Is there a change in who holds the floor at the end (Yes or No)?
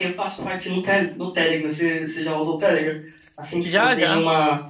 No